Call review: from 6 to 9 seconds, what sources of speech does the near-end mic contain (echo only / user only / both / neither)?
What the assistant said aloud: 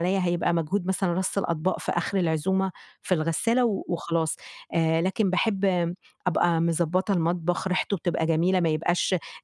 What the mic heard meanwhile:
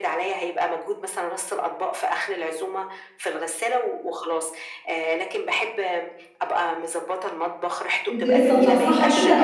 both